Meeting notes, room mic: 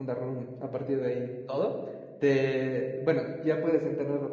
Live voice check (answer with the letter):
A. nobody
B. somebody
B